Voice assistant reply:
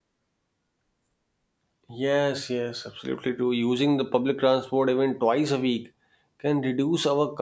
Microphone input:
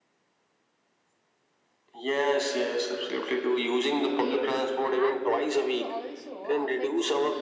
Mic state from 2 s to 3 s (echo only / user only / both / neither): echo only